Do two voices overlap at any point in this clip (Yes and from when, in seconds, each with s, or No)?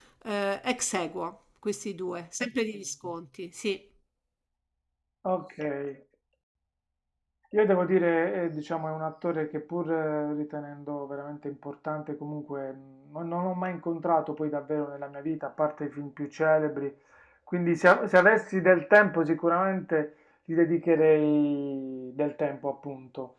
No